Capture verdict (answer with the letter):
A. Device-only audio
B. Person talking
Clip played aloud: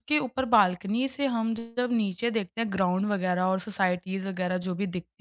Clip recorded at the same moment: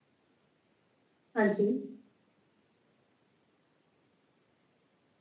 B